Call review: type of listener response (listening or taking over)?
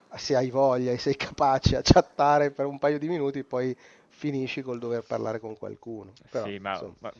taking over